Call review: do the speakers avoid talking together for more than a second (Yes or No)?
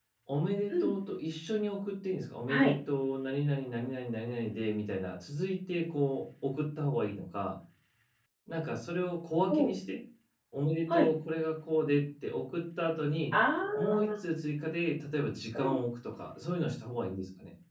Yes